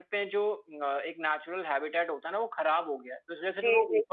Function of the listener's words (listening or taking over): taking over